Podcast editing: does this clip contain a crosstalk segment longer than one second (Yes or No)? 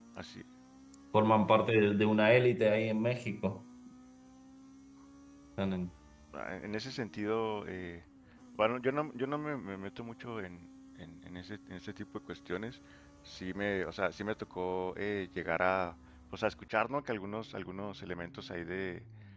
No